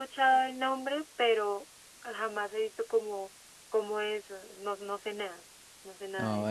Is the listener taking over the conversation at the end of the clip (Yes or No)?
Yes